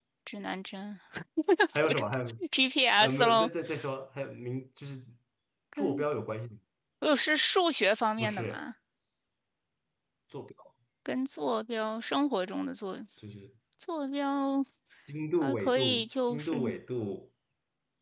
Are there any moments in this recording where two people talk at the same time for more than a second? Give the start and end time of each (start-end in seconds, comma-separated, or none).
15.4-16.8